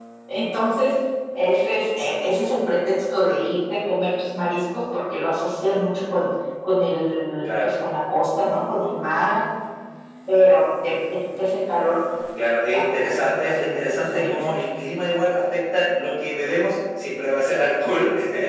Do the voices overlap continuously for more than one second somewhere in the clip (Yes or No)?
Yes